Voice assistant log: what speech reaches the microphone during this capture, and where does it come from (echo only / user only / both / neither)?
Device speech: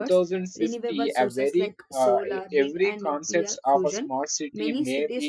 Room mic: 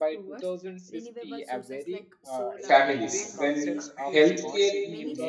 both